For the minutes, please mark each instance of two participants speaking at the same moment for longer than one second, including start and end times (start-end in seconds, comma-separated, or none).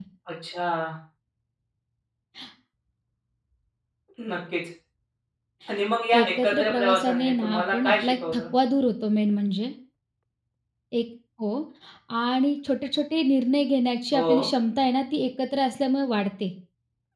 6.2-8.4